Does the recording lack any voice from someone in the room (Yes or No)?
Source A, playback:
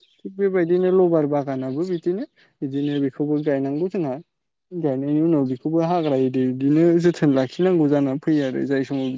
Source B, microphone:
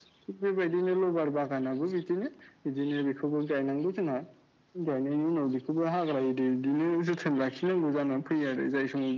Yes